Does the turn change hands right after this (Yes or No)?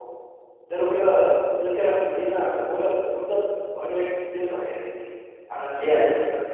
No